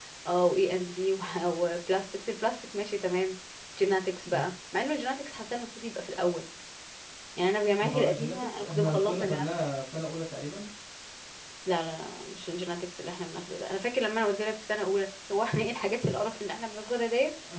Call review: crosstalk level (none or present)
present